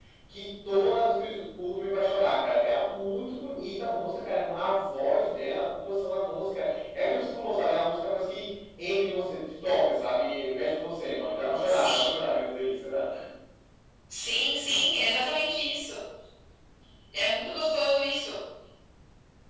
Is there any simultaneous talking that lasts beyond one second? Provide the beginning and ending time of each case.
none

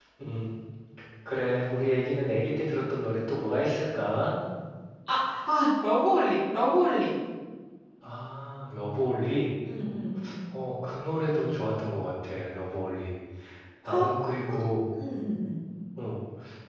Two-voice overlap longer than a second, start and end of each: none

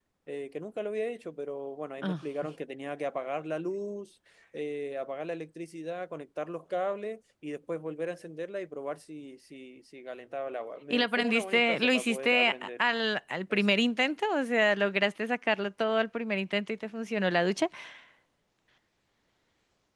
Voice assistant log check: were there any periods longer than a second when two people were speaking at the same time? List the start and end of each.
10.9-12.7

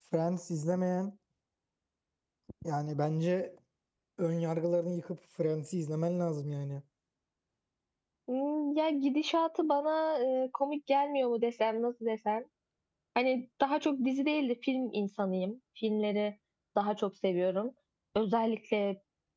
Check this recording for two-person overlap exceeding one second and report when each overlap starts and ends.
none

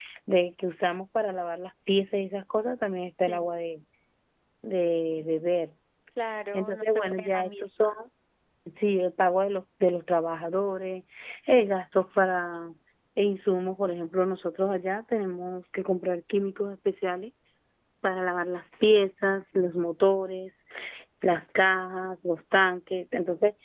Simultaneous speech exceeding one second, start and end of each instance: 6.5-7.9

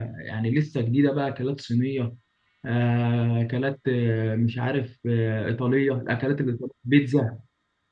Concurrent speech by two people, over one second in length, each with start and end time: none

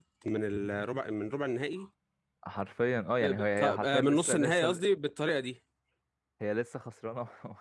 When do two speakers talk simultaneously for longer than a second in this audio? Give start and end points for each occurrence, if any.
3.2-4.8

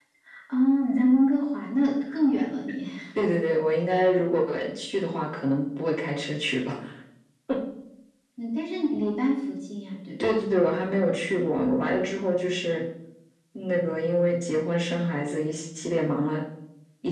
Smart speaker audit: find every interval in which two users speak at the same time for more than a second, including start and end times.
none

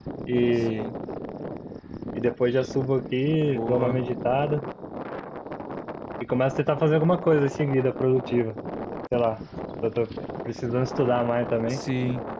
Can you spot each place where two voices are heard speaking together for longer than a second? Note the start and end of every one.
none

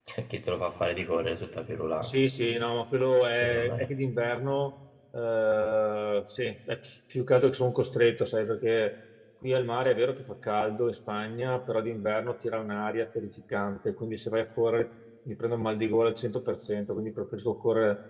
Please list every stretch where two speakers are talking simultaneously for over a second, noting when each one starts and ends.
none

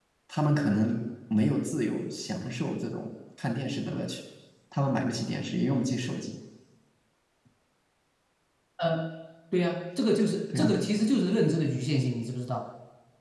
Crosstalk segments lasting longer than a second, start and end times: none

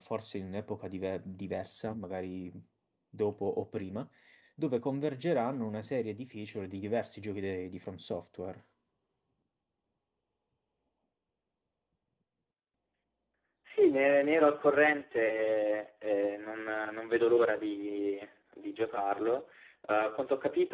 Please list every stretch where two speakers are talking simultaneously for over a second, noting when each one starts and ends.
none

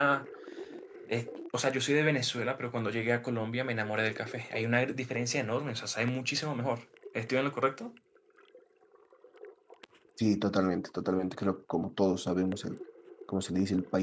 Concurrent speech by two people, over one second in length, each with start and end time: none

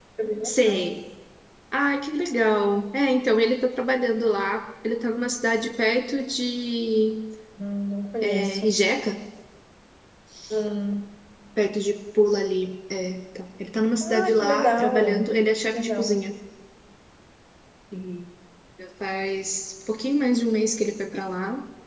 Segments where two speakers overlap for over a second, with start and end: 14.0-15.3

